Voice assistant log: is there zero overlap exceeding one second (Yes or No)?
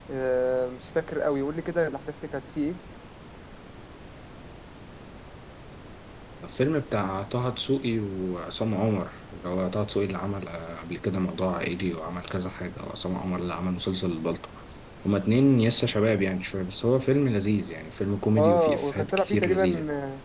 No